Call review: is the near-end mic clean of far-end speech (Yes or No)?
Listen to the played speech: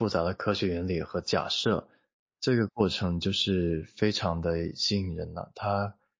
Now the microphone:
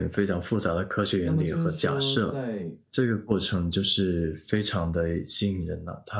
No